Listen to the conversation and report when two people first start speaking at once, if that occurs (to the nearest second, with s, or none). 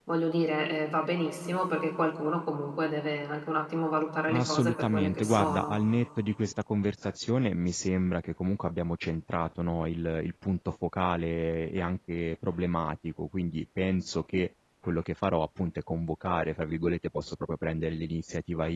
4 s